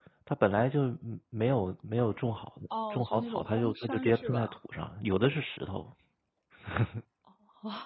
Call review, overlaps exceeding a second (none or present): present